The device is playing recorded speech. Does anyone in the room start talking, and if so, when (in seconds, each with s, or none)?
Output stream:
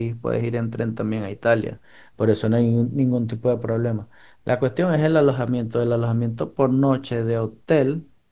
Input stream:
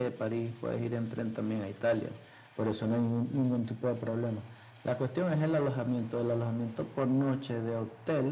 none